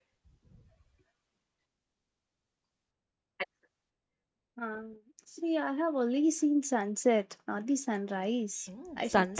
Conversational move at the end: taking over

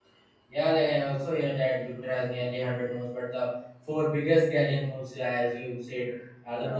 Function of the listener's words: listening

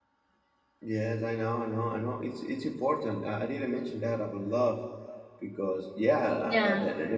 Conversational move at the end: listening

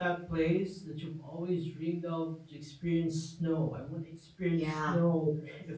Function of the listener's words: listening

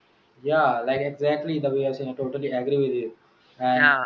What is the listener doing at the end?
listening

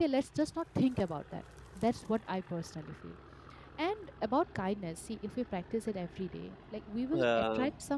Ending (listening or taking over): listening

